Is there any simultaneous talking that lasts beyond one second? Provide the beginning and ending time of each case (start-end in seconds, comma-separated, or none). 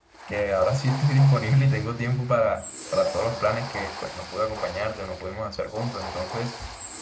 none